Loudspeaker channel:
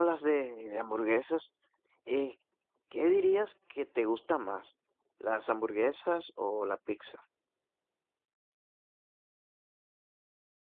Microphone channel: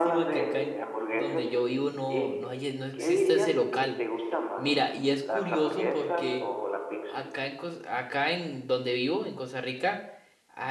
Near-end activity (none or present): present